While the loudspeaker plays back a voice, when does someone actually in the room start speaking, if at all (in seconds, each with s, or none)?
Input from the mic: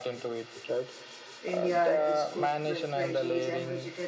1.4 s